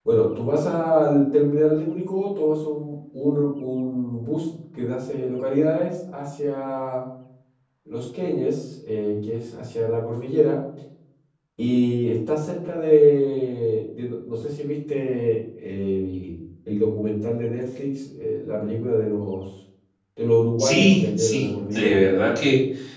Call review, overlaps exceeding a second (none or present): present